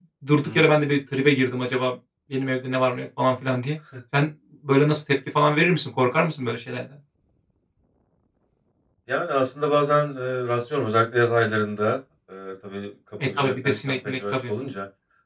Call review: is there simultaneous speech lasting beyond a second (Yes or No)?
Yes